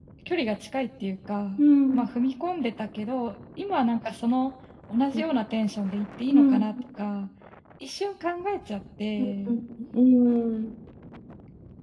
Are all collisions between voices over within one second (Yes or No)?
Yes